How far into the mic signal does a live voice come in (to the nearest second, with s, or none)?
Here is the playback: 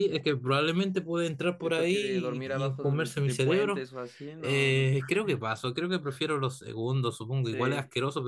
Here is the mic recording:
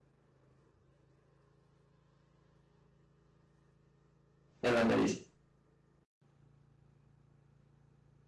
5 s